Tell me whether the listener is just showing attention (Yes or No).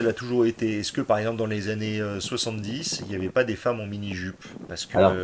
Yes